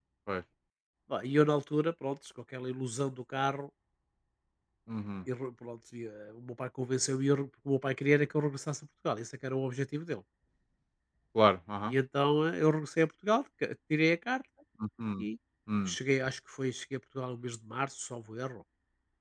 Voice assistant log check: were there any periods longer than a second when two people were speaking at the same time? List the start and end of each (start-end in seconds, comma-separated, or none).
none